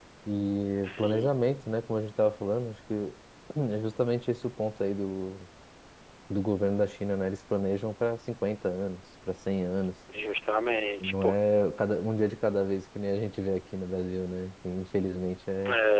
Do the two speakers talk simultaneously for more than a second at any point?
No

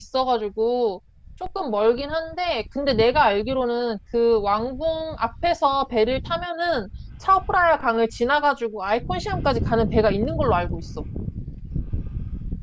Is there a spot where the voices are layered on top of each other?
No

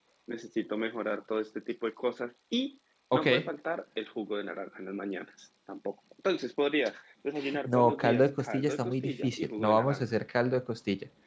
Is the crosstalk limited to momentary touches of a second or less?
No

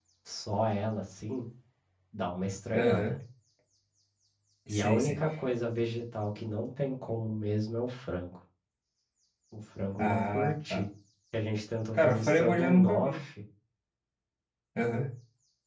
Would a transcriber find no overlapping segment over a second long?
No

